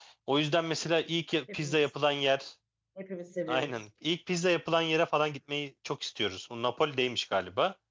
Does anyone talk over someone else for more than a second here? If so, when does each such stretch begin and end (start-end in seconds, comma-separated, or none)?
none